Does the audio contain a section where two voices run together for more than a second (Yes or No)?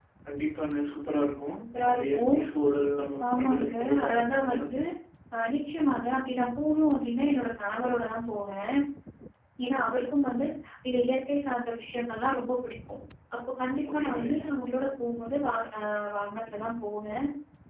Yes